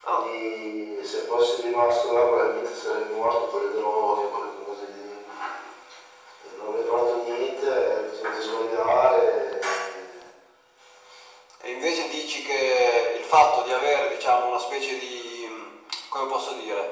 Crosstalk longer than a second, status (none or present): none